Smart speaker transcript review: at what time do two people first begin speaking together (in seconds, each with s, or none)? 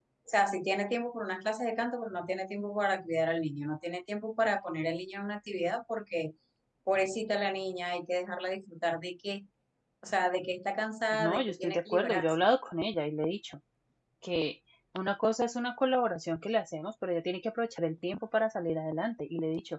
11.1 s